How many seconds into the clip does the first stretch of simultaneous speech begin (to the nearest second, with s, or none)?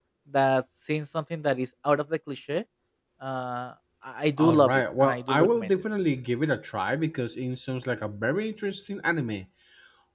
4 s